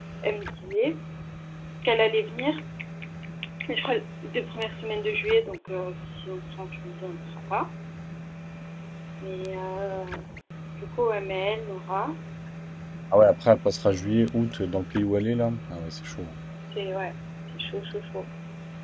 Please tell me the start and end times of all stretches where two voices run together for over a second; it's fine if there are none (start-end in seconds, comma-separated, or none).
none